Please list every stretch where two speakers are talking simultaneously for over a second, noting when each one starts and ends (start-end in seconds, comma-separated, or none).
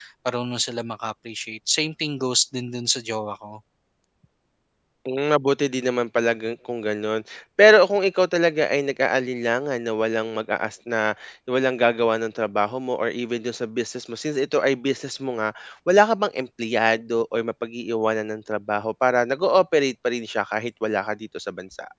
none